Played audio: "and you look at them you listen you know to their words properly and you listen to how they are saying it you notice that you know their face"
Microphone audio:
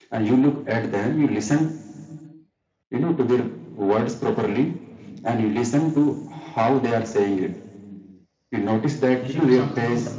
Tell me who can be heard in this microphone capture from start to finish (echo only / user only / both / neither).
both